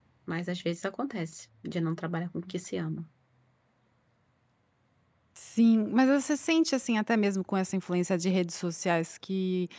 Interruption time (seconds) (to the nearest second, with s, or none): none